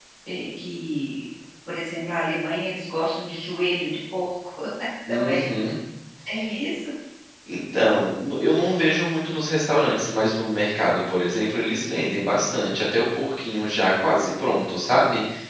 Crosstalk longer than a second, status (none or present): none